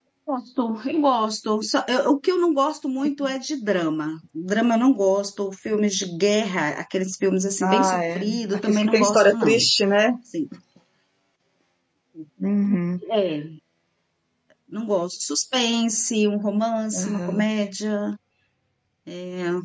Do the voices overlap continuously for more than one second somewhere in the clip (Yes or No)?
Yes